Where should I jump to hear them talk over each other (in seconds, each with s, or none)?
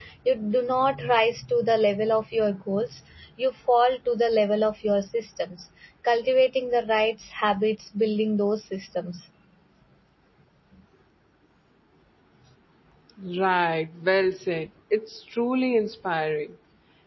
none